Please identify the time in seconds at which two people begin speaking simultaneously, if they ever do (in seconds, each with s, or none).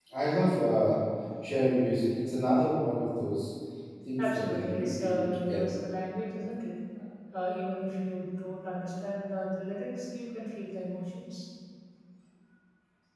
4.2 s